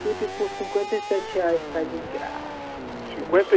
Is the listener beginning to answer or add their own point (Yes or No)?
Yes